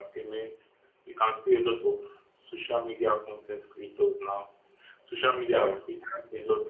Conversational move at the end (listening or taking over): listening